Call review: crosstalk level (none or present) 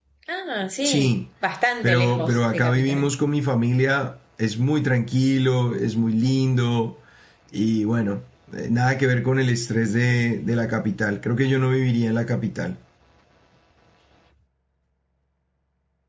present